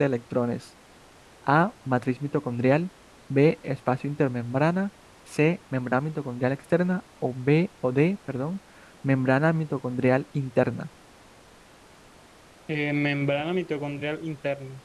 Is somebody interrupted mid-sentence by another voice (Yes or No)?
No